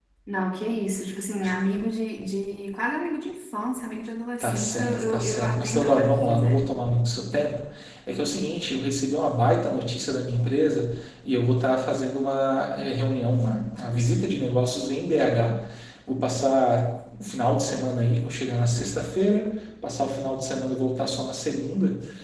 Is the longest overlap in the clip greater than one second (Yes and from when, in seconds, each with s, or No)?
Yes, from 4.4 s